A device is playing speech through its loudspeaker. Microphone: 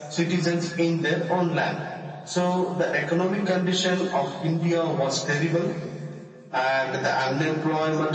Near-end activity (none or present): none